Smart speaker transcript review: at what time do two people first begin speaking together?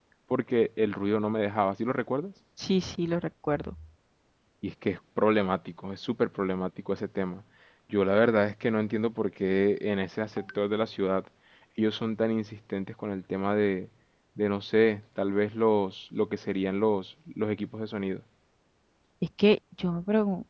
none

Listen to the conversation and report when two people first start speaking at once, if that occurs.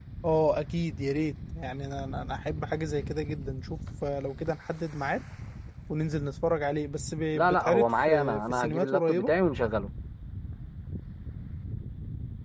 7.3 s

